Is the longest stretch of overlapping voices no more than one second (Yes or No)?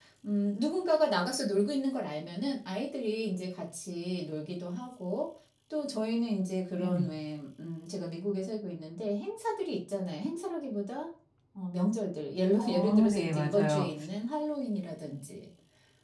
No